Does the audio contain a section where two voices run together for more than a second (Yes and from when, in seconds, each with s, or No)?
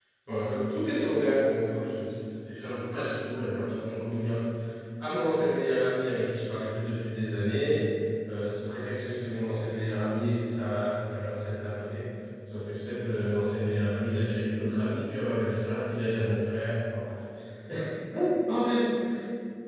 No